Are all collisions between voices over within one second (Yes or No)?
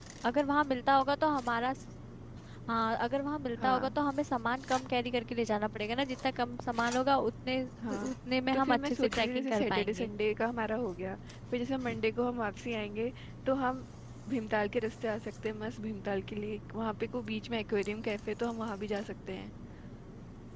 No